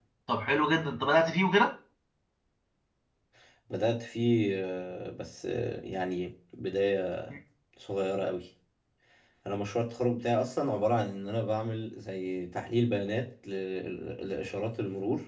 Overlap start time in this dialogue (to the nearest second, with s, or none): none